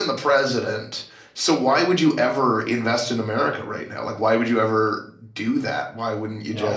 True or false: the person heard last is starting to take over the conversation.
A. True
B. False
A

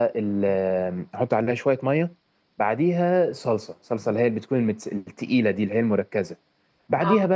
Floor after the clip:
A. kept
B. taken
A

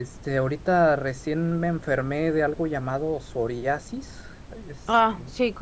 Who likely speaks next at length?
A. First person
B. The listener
B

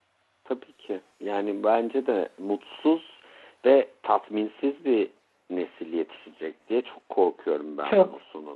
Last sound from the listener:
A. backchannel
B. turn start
B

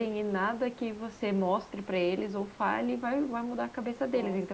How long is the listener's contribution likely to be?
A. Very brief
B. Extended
A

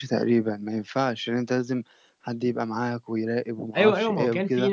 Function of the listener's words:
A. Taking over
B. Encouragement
A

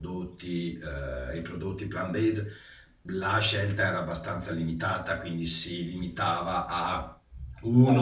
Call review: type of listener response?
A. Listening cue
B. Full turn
A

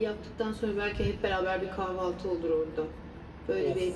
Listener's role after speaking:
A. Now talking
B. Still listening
A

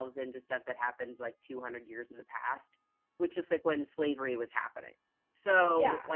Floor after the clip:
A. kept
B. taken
A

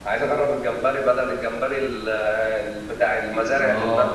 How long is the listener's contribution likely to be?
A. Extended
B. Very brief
A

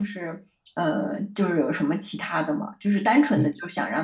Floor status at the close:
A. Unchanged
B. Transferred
A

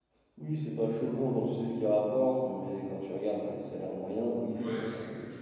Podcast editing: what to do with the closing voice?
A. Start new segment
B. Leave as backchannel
A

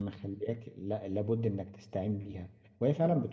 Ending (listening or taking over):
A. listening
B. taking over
A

